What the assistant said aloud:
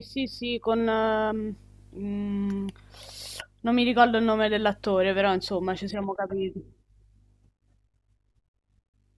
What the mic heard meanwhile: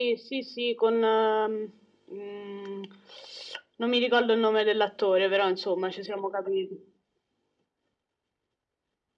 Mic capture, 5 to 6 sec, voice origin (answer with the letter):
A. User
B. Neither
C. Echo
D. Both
C